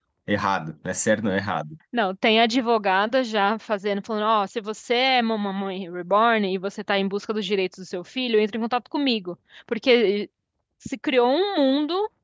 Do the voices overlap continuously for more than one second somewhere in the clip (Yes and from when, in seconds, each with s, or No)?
No